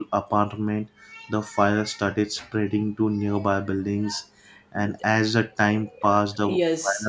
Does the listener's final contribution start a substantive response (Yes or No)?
Yes